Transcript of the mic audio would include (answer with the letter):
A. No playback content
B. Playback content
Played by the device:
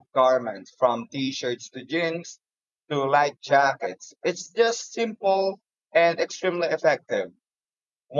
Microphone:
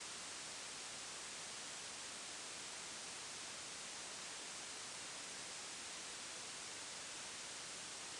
A